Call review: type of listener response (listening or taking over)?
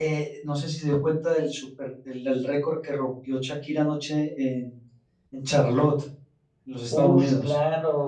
taking over